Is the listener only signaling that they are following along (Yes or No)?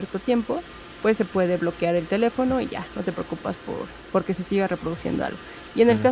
Yes